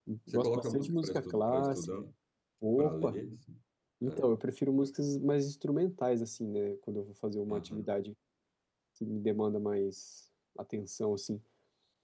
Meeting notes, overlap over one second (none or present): present